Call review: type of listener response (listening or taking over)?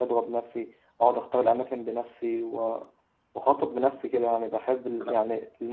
listening